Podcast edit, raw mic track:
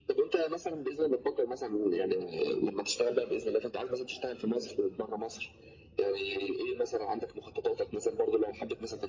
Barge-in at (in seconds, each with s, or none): none